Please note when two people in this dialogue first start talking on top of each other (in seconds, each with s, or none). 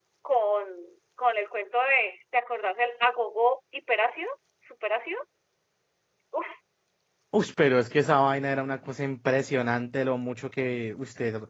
none